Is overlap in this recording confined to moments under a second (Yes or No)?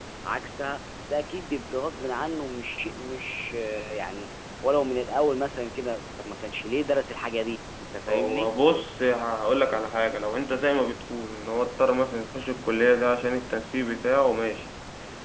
Yes